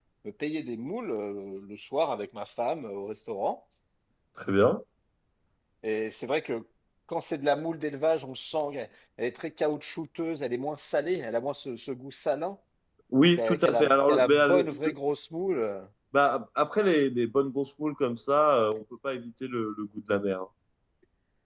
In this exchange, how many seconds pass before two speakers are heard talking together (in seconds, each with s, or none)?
13.4 s